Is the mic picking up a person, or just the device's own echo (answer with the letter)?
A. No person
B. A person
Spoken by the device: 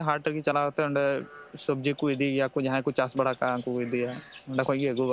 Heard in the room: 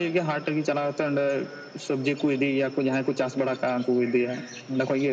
A